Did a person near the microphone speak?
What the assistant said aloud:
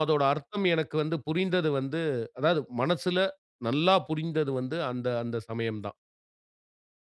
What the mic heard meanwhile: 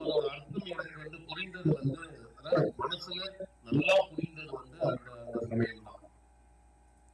No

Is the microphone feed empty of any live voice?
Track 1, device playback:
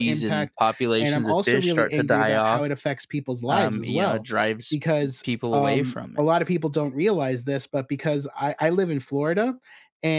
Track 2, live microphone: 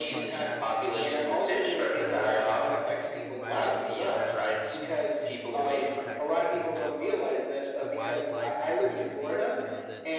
No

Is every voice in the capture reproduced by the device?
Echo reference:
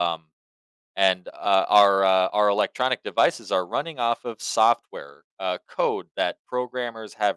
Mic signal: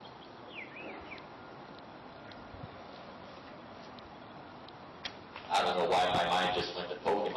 No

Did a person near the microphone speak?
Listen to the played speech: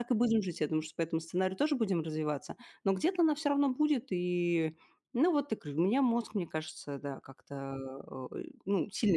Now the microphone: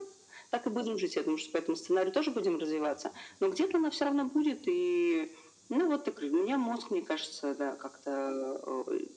No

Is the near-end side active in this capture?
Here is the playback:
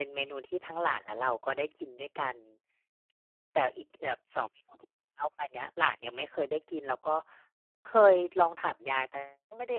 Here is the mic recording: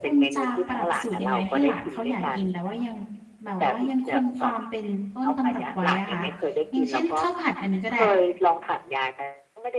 Yes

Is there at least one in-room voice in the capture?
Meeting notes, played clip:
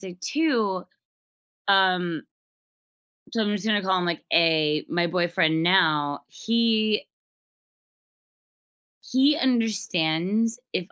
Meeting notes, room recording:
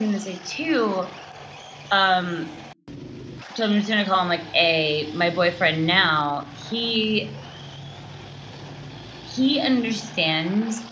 No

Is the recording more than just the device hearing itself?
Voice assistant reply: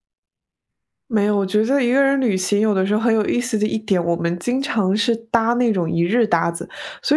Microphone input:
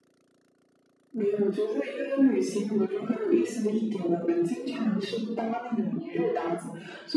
No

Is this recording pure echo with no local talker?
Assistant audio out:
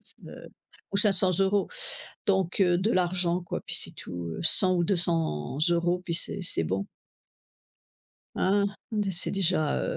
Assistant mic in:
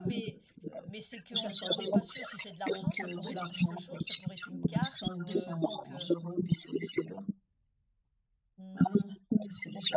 No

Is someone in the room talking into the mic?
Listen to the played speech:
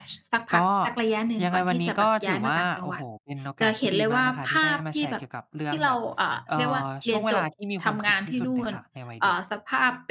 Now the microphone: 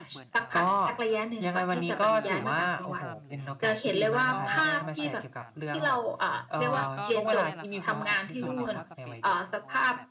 Yes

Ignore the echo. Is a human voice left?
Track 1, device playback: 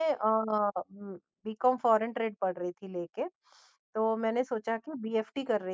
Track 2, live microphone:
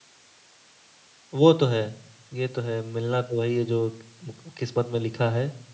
Yes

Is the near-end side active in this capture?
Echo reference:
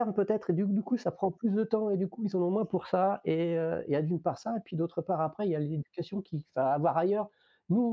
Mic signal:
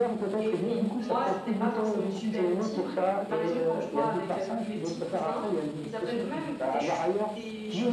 Yes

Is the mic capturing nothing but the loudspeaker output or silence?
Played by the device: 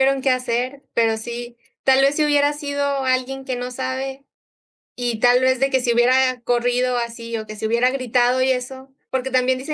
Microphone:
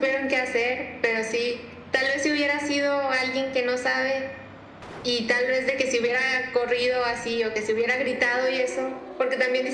Yes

